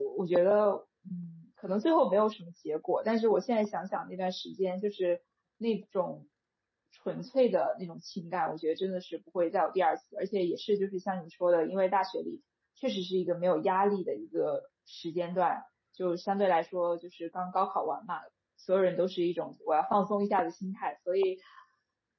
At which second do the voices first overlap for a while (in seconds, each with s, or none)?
none